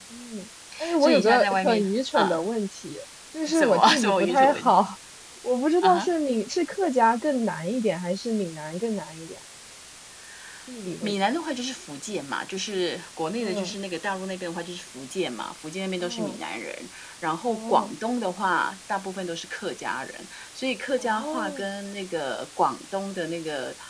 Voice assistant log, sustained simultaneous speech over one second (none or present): present